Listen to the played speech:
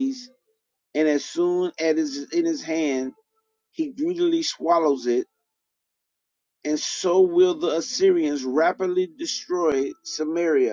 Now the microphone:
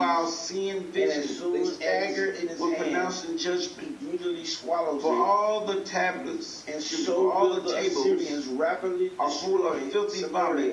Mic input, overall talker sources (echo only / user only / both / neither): both